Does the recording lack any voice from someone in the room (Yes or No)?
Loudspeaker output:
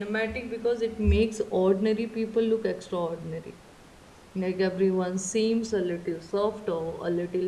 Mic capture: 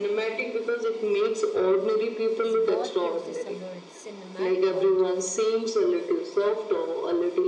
No